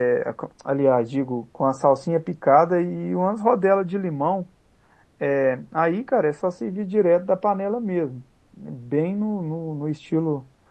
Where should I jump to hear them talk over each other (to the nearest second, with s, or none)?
none